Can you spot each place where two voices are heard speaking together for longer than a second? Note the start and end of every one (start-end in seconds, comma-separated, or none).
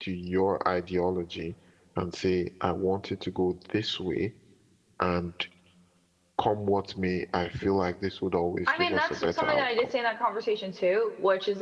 8.7-9.9